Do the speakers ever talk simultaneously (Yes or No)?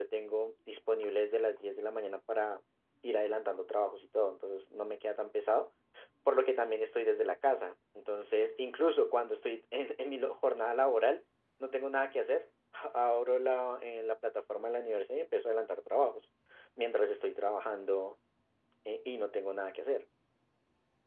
No